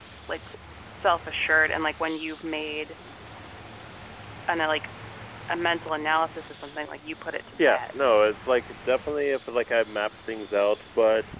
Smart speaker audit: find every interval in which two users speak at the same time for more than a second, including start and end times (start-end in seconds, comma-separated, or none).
none